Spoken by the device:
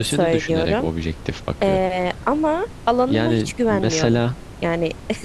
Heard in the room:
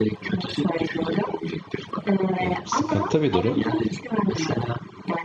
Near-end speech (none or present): present